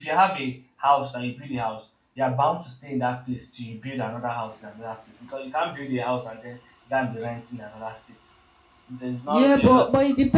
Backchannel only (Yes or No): No